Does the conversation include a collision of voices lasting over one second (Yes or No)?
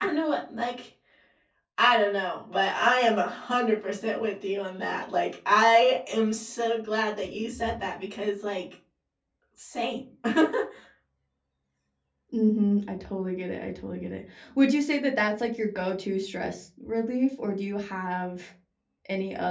No